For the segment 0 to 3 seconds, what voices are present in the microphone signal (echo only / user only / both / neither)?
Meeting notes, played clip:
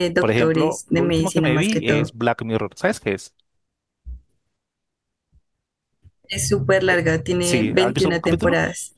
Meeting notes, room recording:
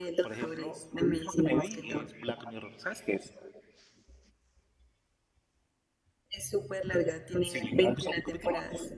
echo only